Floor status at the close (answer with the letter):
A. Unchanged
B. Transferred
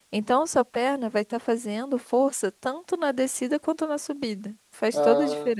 B